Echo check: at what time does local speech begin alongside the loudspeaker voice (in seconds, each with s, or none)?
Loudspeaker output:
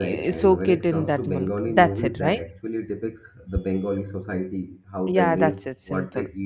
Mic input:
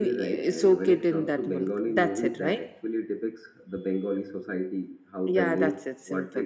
none